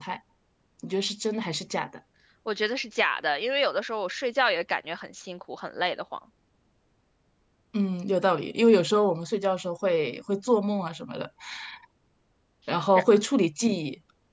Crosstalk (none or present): none